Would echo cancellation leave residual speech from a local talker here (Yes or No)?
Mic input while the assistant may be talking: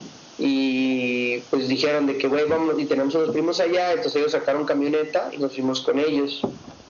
No